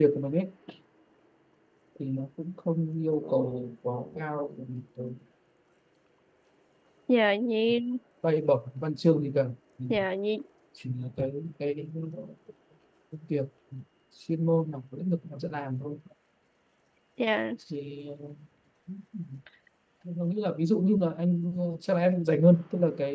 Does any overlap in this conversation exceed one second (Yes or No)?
No